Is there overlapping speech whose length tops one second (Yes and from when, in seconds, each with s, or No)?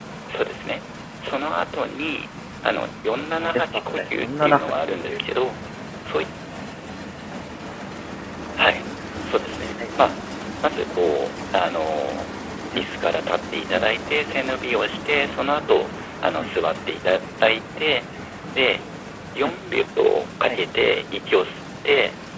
Yes, from 3.5 s